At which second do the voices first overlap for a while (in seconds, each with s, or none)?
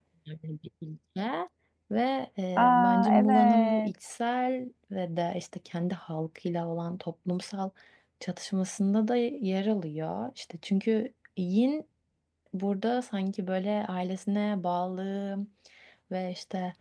2.6 s